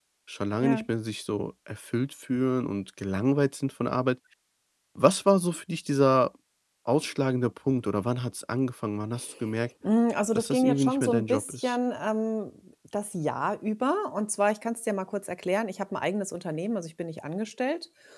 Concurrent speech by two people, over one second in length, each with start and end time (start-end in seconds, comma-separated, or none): 10.3-11.8